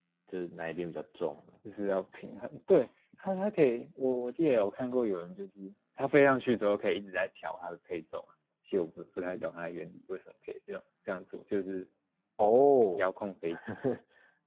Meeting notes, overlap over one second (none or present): none